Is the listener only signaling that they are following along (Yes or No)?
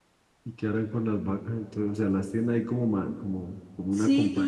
No